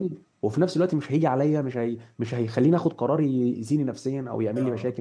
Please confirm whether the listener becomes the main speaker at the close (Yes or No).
Yes